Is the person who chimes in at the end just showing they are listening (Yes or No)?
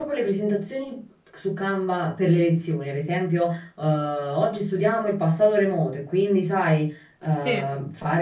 Yes